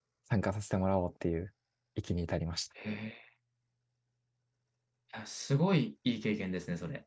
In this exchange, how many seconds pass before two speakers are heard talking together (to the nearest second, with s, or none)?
none